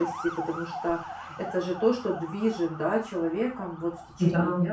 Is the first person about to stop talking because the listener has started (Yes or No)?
No